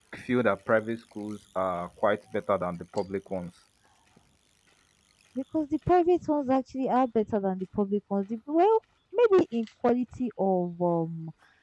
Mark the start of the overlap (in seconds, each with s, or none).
none